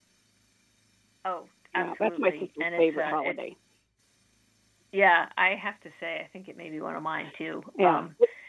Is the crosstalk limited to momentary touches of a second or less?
No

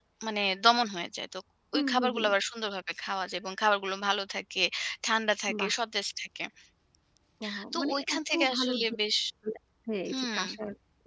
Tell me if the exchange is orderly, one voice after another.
No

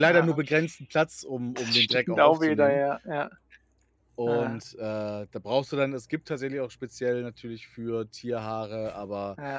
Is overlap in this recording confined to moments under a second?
No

